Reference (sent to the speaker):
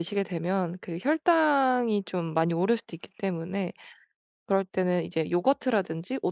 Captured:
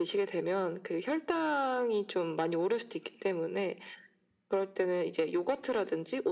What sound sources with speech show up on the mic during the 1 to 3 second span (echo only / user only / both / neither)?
echo only